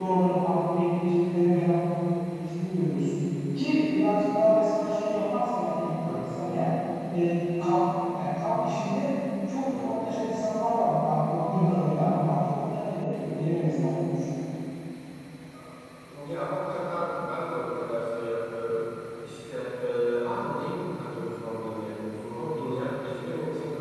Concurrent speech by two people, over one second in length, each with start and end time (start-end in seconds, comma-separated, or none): none